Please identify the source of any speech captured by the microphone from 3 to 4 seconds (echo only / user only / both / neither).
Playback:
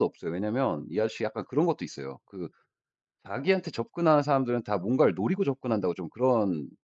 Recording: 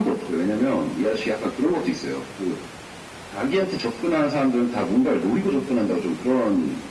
echo only